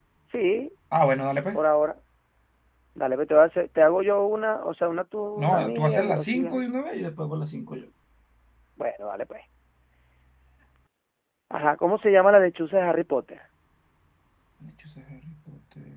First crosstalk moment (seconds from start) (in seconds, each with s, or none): 5.4 s